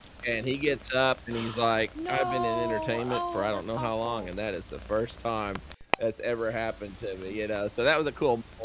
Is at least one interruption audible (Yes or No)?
Yes